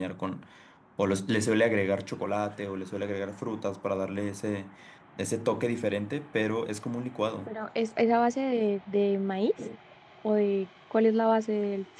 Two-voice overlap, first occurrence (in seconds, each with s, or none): none